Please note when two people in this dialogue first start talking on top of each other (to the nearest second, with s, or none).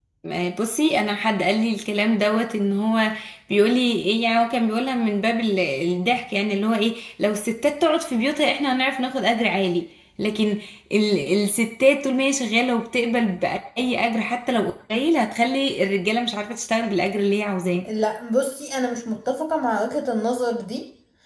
none